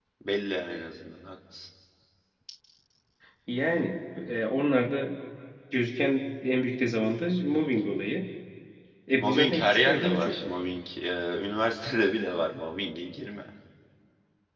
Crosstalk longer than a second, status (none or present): present